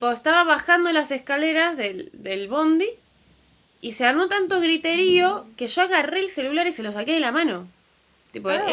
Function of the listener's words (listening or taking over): taking over